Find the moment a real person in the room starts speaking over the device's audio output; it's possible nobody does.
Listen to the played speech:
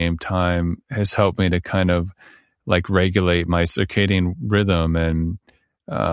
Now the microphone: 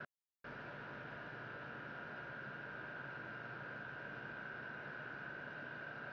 none

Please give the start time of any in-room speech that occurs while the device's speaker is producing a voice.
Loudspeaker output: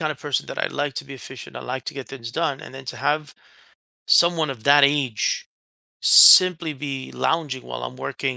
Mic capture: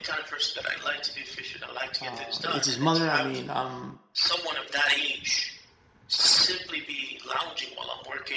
2.0 s

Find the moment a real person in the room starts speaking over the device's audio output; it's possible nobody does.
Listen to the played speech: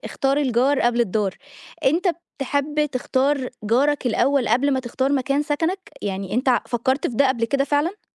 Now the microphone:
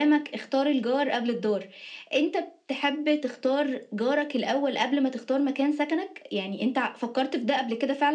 none

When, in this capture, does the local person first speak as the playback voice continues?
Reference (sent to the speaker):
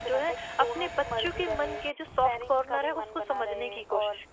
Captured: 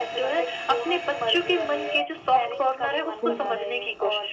3.2 s

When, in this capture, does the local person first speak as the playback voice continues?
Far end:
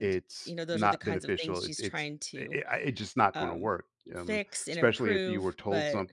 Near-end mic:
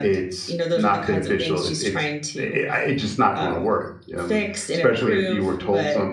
none

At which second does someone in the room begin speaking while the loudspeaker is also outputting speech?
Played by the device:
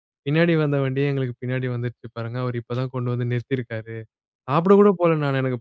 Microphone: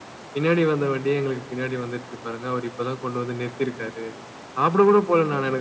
none

